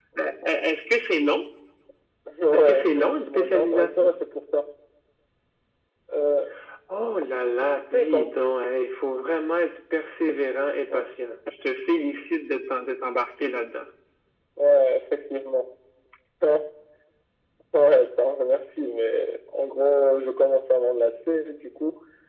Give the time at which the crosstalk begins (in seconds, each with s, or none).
2.5 s